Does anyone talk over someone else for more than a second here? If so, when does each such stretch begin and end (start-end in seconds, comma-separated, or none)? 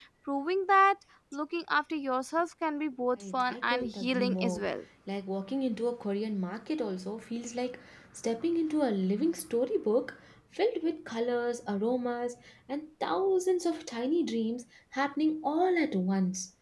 3.2-4.7